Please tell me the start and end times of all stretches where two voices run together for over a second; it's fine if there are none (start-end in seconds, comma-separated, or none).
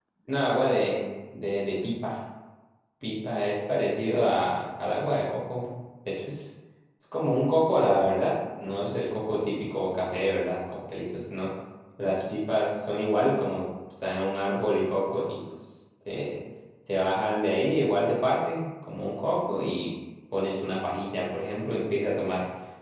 none